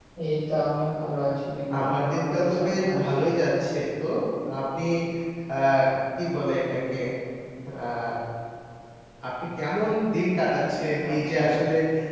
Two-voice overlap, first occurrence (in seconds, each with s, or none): 1.8 s